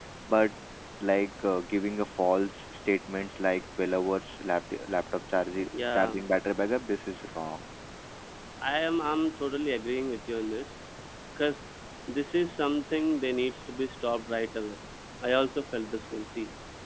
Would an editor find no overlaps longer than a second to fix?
Yes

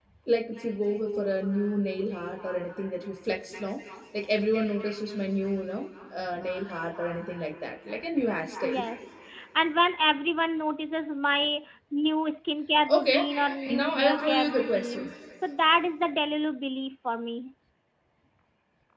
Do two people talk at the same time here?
Yes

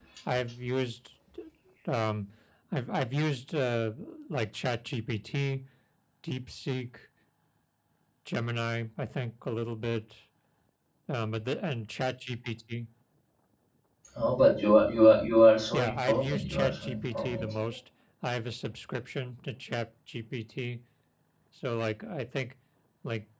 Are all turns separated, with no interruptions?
No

